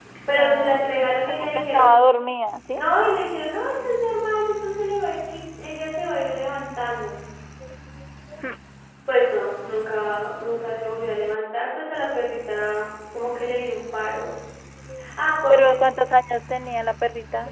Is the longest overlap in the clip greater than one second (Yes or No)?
Yes